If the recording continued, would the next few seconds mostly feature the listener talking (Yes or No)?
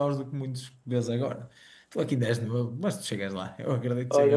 Yes